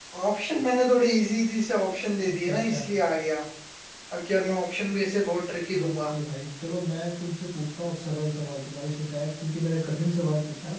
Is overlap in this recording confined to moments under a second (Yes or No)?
Yes